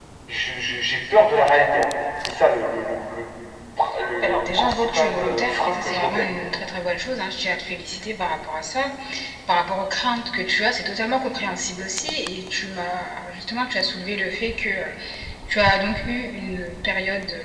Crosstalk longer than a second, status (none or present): present